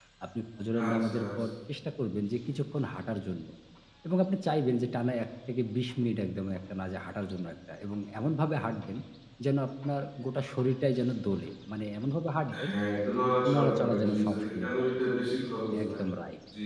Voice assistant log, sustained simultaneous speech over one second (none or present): present